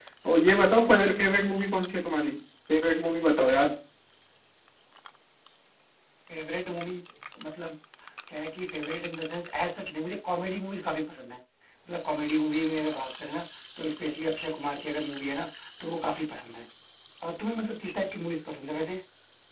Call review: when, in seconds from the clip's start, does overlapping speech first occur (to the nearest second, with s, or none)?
none